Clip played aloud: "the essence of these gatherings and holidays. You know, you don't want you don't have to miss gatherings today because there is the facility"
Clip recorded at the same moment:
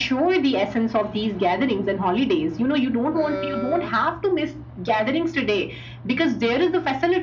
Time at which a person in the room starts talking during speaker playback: 3.1 s

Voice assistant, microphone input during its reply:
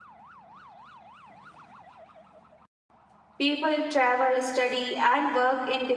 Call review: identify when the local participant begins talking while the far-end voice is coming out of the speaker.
3.4 s

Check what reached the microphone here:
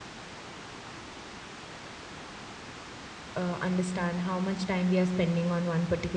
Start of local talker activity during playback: 3.3 s

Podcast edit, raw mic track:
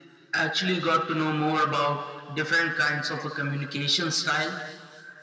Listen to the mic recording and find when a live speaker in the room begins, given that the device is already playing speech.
none

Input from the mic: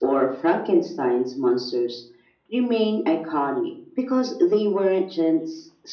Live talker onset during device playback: none

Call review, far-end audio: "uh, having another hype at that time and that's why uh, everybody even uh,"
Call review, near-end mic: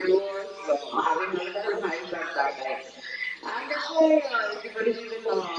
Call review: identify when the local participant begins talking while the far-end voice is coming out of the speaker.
none

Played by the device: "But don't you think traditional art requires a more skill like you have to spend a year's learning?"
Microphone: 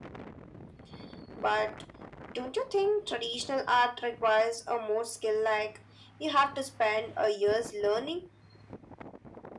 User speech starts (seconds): none

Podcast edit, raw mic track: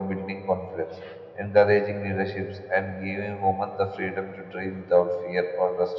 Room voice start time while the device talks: none

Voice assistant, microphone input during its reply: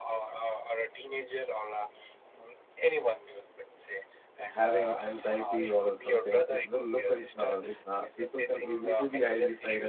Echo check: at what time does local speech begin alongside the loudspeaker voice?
4.5 s

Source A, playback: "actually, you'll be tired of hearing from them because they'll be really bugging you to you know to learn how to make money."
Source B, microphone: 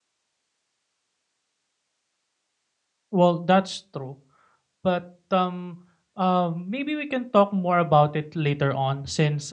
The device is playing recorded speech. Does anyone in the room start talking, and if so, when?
3.1 s

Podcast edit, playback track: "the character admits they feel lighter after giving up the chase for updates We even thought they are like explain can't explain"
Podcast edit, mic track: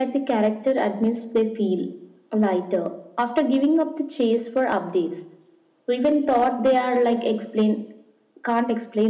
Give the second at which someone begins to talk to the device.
none

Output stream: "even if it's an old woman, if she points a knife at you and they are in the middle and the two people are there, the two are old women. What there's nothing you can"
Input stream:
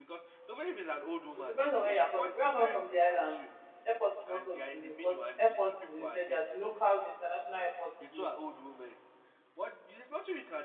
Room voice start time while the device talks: 1.4 s

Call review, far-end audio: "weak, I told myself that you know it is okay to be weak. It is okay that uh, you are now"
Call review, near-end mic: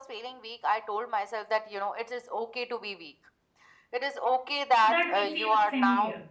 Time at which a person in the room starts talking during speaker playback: 4.7 s

